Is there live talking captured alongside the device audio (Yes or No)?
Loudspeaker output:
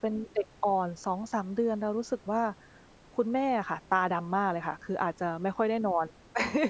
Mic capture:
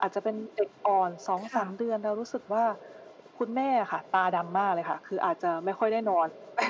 Yes